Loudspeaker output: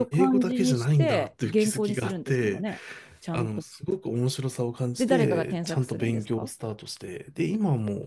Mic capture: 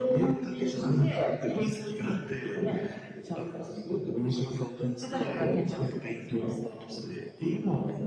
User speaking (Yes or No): No